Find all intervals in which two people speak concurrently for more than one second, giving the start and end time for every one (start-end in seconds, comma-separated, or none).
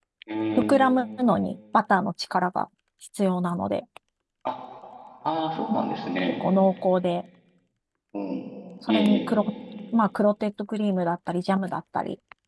none